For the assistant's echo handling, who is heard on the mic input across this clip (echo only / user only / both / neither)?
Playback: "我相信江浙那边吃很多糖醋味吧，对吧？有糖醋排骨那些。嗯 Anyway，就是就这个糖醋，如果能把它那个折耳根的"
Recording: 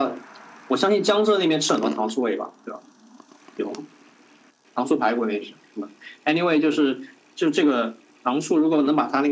echo only